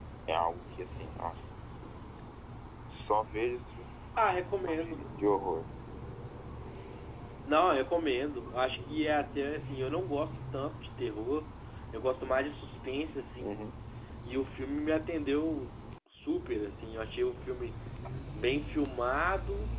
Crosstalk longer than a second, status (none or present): none